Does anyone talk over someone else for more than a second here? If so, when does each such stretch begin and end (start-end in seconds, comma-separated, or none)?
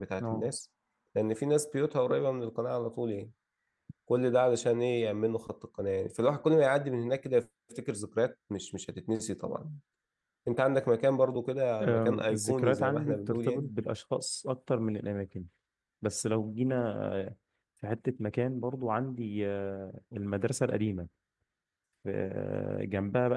11.8-13.7